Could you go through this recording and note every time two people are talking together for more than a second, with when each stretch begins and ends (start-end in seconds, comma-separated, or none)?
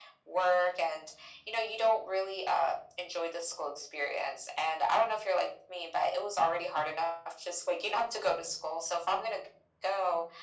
none